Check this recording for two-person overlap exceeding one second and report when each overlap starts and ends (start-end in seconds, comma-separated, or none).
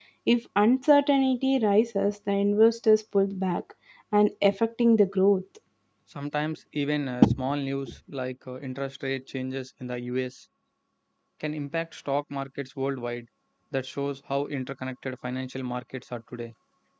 none